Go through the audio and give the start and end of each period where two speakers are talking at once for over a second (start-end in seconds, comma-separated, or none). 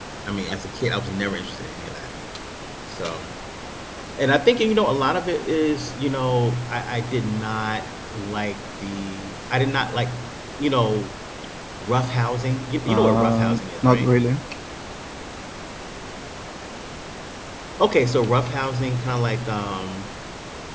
12.9-14.1